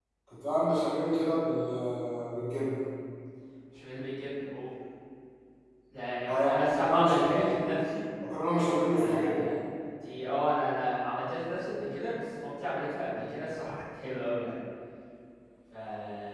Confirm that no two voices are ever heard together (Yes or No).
No